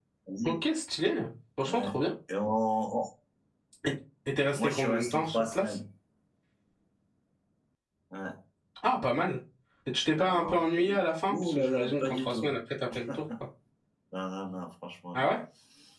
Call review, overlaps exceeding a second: present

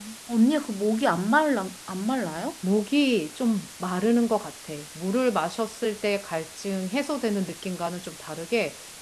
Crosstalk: none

